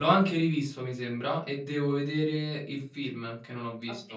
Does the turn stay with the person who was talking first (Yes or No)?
No